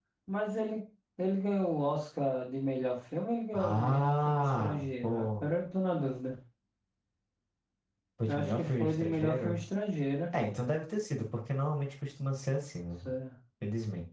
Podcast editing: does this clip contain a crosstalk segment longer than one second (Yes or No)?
Yes